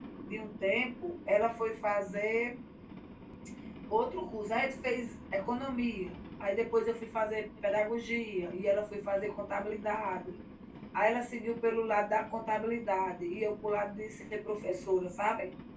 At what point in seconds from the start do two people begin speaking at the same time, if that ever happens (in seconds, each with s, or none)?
none